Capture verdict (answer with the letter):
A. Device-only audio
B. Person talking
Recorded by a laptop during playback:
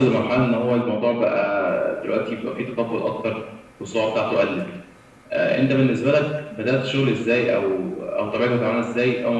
A